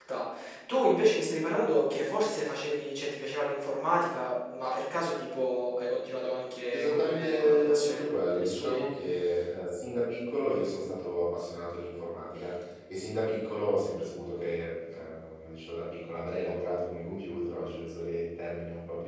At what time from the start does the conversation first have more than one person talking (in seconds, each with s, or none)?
6.7 s